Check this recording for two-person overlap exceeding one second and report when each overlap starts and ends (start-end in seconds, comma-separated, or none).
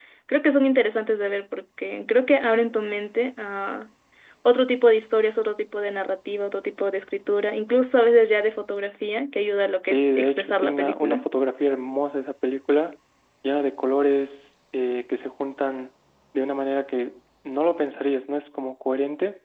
9.8-11.2